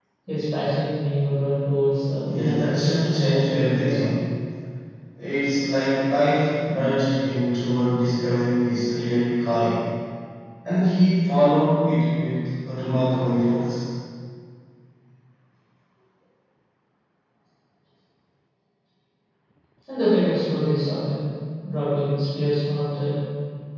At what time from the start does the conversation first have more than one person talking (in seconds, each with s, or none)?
2.3 s